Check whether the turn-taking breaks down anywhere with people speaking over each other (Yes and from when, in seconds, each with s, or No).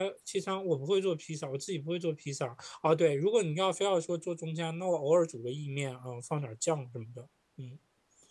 No